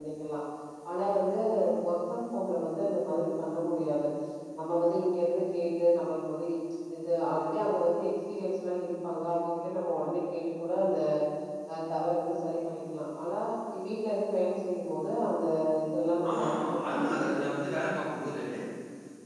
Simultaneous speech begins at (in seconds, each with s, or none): 16.3 s